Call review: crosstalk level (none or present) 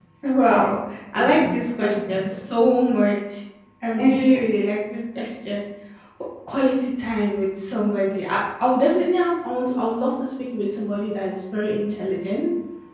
present